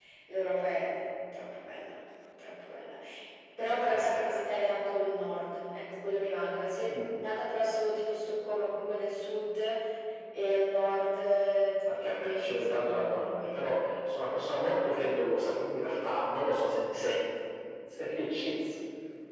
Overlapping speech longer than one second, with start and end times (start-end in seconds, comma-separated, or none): 11.9-13.7